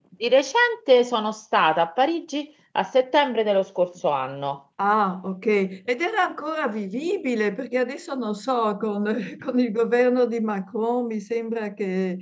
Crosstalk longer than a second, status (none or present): none